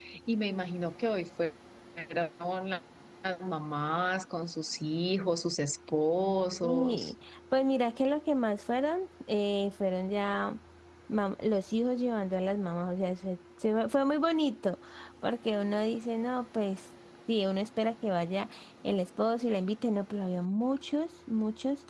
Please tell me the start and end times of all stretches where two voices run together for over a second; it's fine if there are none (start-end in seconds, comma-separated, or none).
none